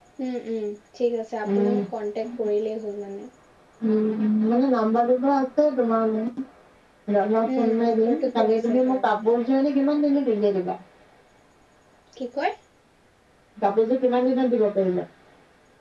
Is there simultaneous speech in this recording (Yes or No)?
Yes